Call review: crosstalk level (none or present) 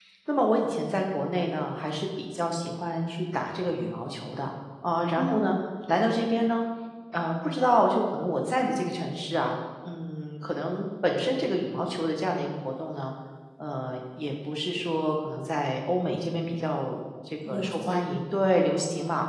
present